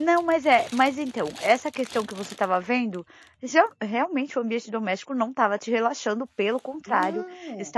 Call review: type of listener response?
listening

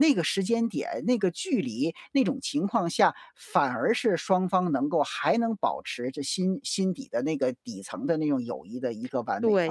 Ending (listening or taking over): taking over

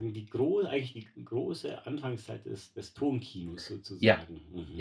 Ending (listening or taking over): taking over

